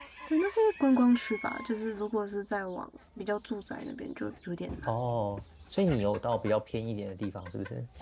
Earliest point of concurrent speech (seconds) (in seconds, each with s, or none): none